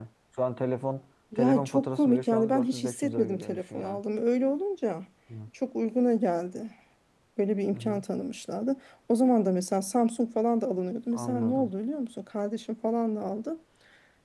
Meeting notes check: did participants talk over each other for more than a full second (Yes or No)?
Yes